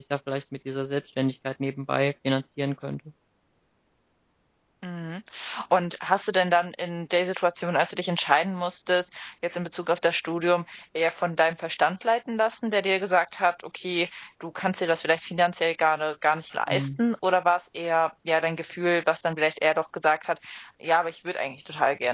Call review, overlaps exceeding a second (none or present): none